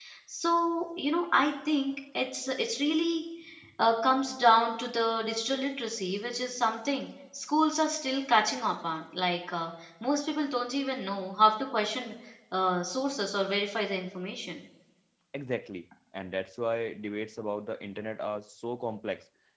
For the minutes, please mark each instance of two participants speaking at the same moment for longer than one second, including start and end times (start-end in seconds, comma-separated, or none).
none